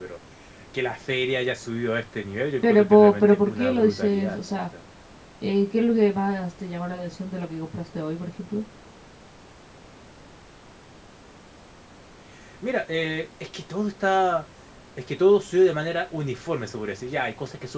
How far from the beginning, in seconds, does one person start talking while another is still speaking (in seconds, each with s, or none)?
2.6 s